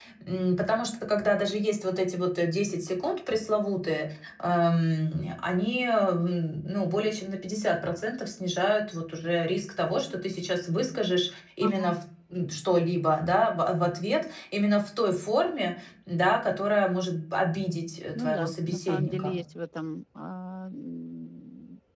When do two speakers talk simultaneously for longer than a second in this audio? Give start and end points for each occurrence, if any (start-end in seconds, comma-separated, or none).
18.1-19.4